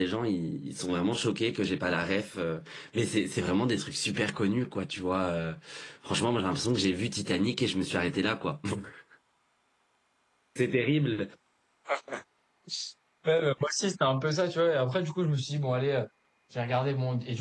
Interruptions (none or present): none